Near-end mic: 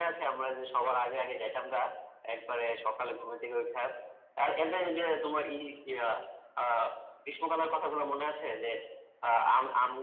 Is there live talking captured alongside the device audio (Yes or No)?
No